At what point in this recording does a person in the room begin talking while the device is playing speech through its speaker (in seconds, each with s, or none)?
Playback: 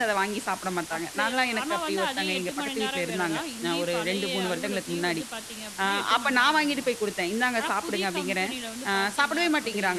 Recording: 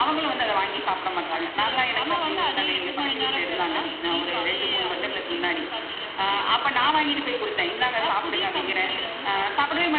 none